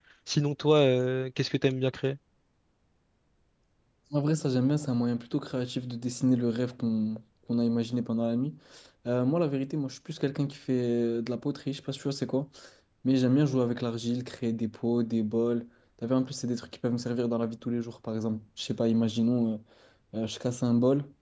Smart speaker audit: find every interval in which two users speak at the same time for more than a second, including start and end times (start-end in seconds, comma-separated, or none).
none